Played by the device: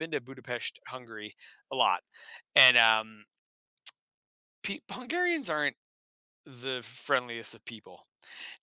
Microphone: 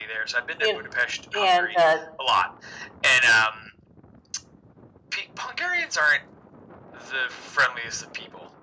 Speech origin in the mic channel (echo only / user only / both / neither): both